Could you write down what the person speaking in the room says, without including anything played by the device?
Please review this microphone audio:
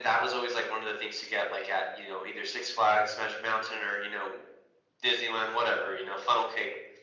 none

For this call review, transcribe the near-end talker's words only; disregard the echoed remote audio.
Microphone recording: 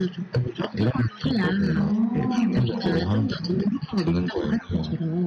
어.

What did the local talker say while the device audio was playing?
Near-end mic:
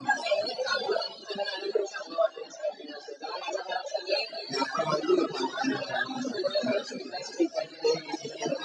none

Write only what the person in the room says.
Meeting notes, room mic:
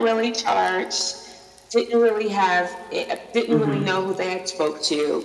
mhm.

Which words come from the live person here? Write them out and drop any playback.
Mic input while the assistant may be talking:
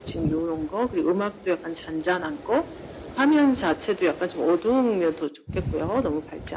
none

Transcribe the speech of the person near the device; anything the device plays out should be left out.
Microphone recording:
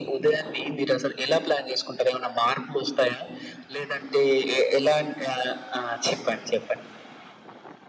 none

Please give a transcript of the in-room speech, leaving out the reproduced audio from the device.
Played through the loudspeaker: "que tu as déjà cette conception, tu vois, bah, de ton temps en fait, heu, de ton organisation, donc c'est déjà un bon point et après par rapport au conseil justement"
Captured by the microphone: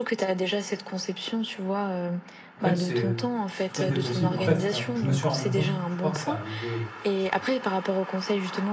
en fait, c'est, c'est tout à fait possible. En fait, heu, je me suis rendu compte, je crois que c'est arrivé, heu, peut-être, heu,

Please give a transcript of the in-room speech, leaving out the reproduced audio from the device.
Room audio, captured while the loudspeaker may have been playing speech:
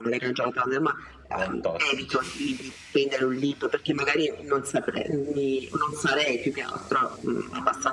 non tossici

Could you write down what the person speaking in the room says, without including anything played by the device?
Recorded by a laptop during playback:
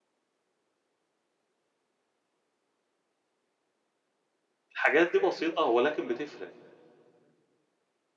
الحاجات دي بسيطة ولكن بتفرق،

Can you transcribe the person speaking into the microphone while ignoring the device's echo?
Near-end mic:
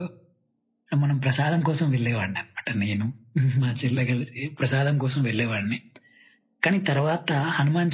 none

